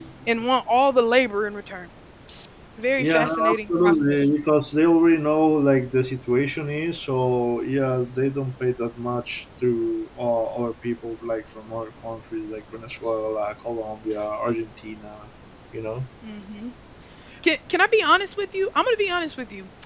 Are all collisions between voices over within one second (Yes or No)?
No